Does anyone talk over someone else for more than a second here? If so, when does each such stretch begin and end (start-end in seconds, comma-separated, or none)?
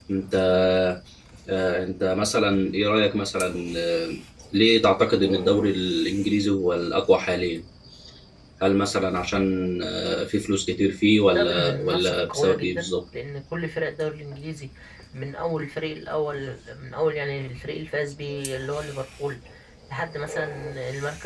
11.2-12.9